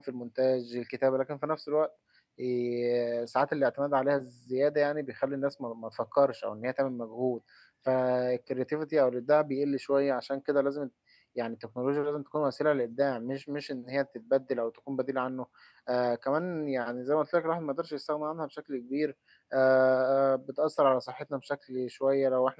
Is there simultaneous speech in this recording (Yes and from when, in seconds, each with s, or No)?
No